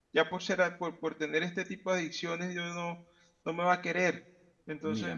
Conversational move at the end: taking over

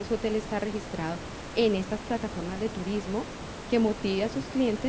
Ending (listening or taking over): listening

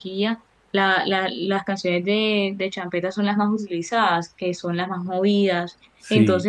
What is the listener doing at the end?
listening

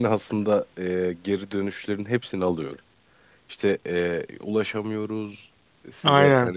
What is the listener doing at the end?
listening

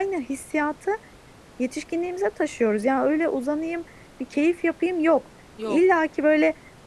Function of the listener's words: listening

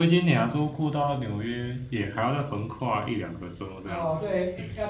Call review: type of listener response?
taking over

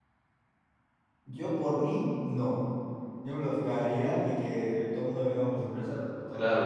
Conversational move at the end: taking over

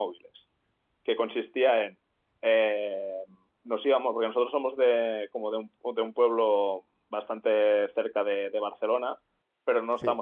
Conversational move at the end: listening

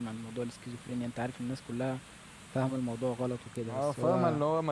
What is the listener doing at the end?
taking over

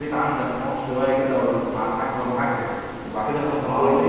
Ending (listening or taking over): listening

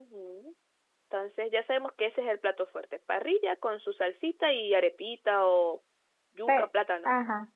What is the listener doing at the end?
taking over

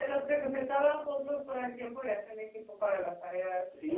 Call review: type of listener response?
taking over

